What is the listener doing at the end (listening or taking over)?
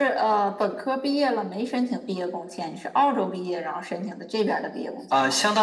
taking over